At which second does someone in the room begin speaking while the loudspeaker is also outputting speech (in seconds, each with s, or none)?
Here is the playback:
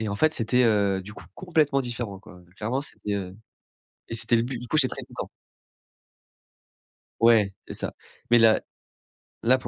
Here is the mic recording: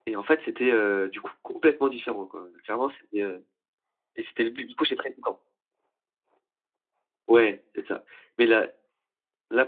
none